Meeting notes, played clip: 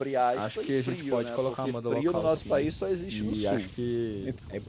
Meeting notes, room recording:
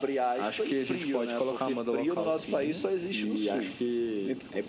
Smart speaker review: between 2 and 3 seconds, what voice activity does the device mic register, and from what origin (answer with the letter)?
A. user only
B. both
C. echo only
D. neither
B